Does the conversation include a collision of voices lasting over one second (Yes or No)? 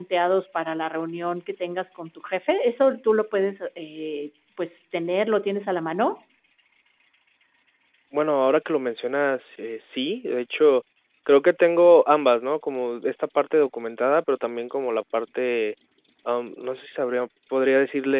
No